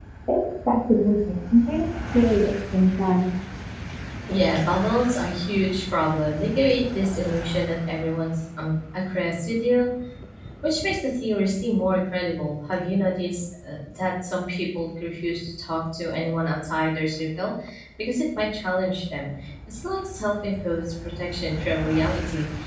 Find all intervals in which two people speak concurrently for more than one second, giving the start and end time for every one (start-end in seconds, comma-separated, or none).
none